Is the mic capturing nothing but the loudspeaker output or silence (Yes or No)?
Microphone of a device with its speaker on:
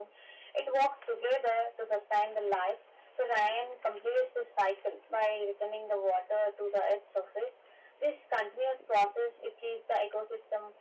Yes